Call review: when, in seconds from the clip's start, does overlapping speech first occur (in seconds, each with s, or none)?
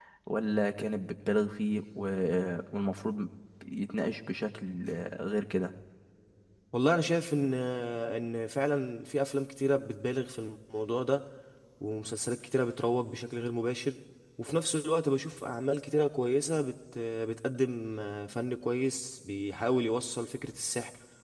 none